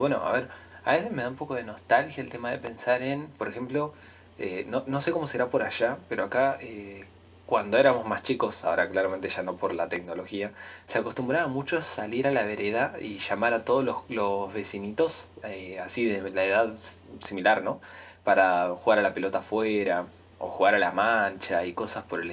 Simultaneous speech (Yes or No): No